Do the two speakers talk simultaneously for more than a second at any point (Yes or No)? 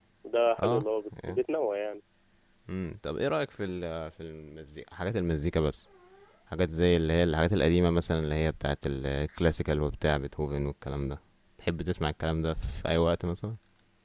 No